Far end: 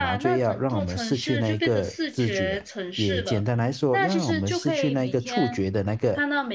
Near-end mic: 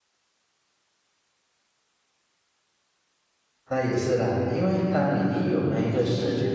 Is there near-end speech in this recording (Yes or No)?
Yes